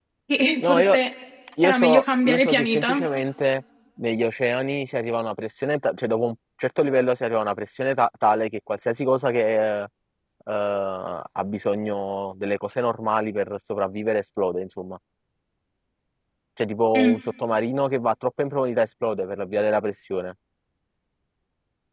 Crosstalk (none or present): present